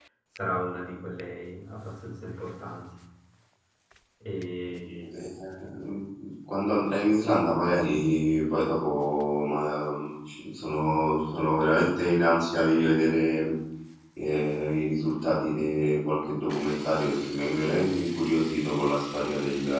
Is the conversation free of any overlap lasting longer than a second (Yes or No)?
Yes